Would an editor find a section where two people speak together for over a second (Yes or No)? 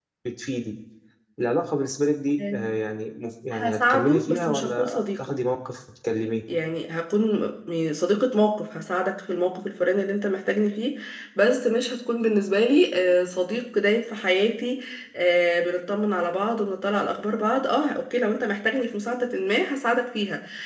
Yes